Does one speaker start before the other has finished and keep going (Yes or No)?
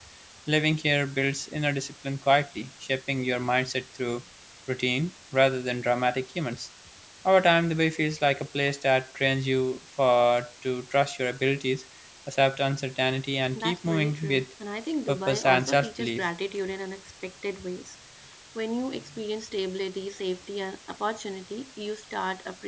Yes